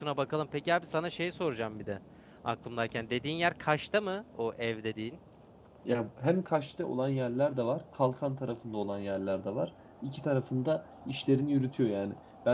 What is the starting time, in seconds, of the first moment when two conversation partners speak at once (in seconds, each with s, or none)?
none